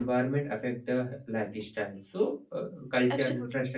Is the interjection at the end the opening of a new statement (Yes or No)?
No